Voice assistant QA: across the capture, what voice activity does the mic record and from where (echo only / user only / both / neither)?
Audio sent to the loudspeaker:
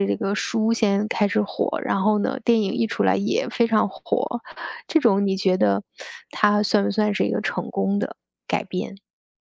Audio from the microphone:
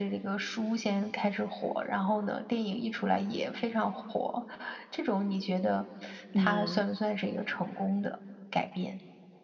both